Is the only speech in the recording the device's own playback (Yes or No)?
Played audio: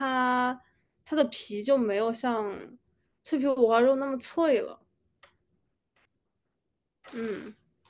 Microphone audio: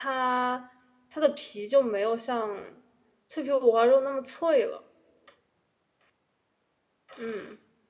Yes